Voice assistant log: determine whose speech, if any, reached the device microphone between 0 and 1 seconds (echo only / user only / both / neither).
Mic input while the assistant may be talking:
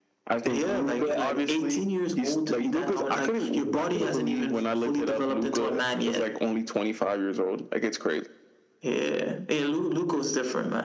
echo only